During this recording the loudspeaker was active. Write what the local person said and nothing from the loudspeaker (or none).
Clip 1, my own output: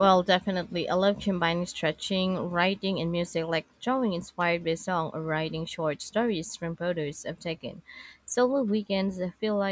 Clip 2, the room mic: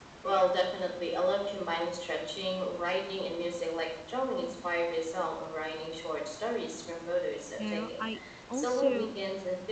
You know, I also